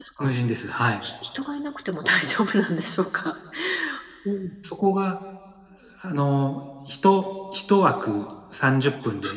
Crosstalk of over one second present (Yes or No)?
No